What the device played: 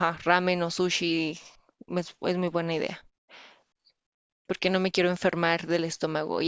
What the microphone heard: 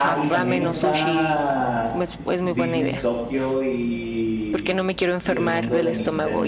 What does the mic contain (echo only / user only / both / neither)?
both